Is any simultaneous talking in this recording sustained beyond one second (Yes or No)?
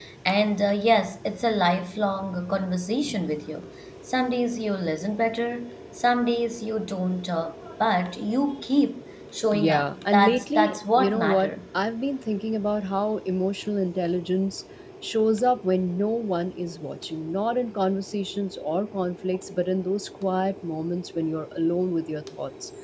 Yes